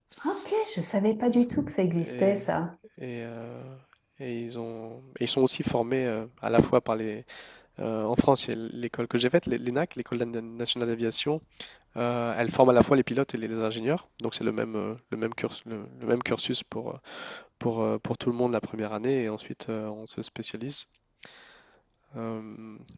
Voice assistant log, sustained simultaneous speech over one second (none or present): none